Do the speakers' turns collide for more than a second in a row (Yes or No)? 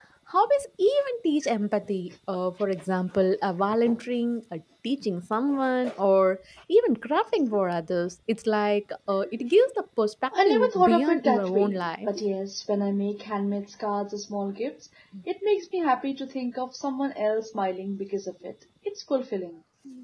Yes